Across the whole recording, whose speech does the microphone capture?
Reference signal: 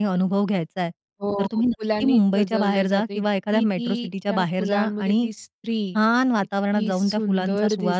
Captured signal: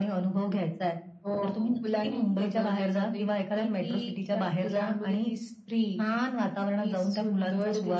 echo only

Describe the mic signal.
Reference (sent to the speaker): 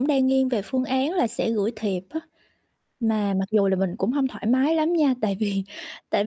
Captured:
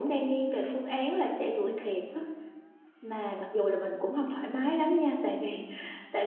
echo only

